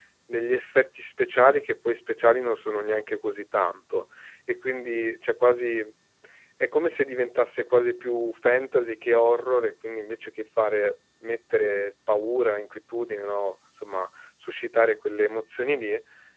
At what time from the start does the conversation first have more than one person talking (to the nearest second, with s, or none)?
none